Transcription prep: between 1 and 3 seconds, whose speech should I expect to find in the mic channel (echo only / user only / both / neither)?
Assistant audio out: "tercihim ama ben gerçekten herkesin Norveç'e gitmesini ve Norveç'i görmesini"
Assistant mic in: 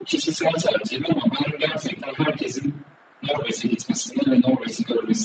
echo only